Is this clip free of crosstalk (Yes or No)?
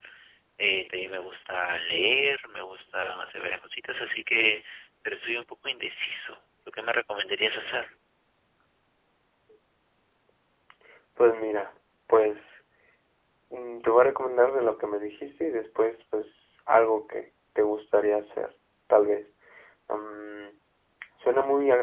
Yes